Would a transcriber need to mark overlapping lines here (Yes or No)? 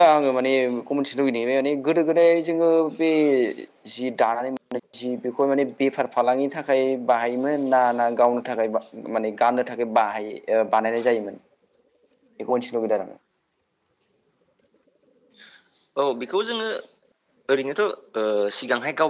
No